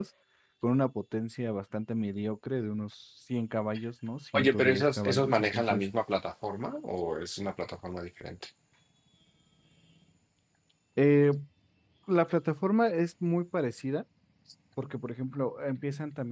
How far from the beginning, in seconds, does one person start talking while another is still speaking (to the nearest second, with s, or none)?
4 s